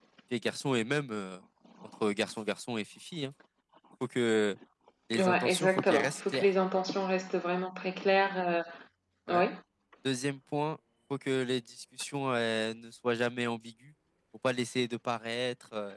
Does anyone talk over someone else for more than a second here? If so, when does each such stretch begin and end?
5.2-6.5

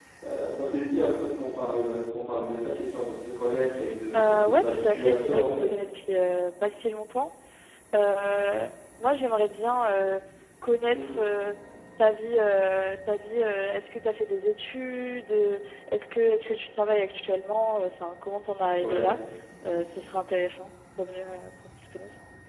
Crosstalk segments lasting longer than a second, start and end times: 4.2-5.6

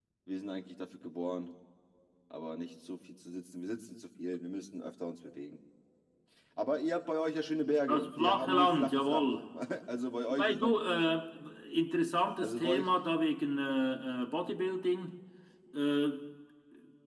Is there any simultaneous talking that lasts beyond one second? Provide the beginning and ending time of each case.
7.9-9.3

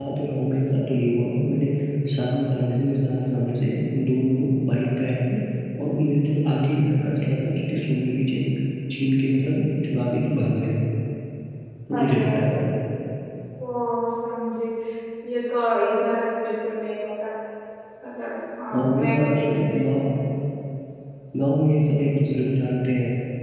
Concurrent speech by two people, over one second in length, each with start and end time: 18.7-20.0

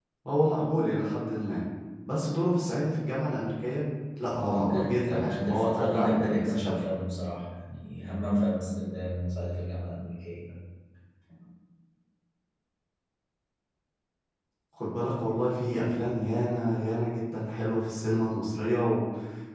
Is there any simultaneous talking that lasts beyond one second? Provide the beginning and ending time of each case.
4.4-6.8

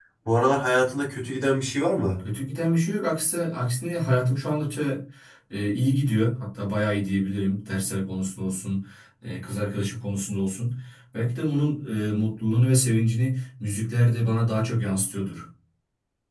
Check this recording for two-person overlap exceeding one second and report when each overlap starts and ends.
none

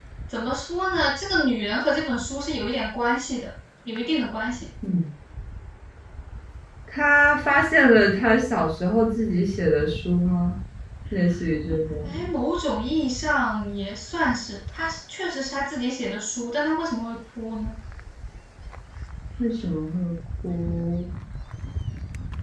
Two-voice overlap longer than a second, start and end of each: none

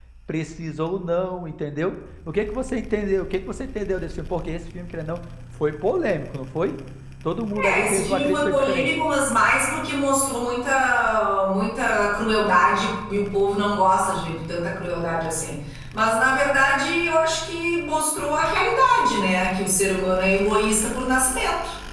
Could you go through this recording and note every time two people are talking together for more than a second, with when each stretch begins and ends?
7.5-8.9

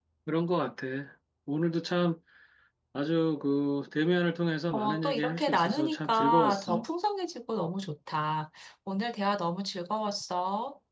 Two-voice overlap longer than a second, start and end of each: 4.7-6.9

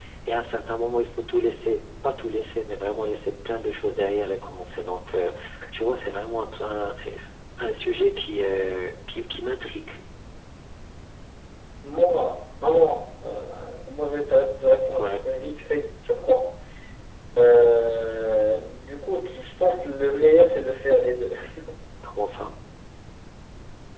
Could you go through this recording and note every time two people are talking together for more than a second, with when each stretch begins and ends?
none

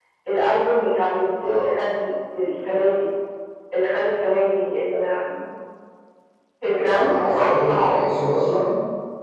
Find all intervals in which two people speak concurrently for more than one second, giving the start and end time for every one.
6.8-8.1

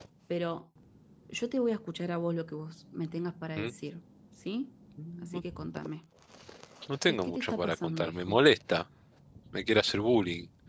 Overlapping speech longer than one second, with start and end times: 7.1-8.4

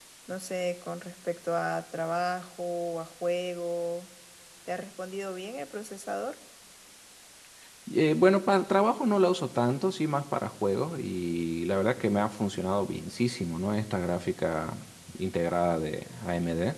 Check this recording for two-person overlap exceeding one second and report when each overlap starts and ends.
none

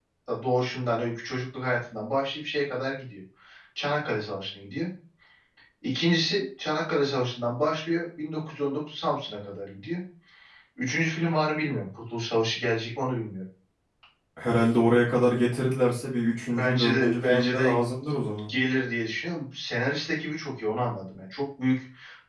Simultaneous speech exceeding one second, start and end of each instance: 16.4-17.8

